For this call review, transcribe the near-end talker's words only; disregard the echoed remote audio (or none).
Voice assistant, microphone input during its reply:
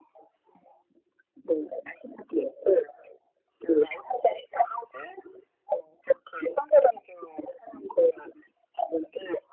none